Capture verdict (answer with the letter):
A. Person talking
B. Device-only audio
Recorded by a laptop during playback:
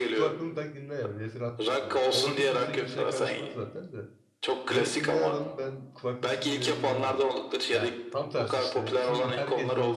A